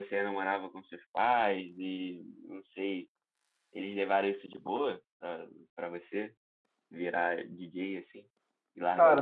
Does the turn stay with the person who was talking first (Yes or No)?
No